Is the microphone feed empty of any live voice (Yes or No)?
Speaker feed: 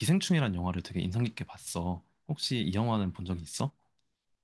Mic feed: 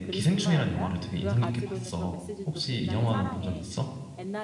No